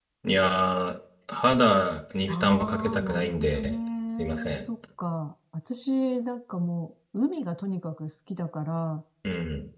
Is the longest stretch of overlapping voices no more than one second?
No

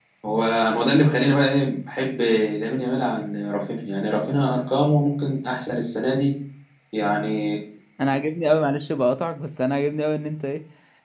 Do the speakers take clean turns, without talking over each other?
Yes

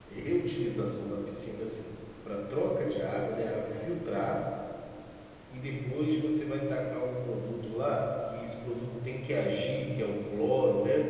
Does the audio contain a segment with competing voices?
No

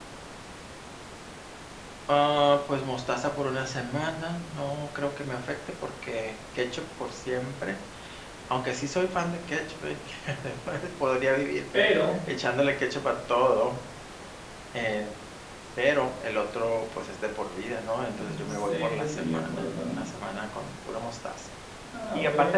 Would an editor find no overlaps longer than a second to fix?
No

